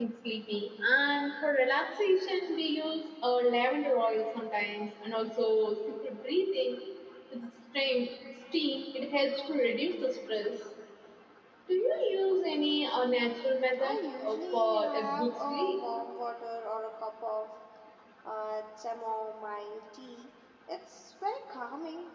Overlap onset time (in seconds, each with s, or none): 13.8 s